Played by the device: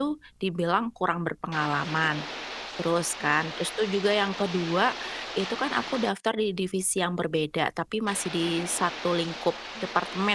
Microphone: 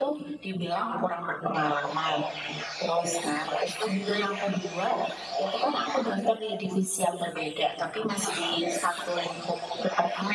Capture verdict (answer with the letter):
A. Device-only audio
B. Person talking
A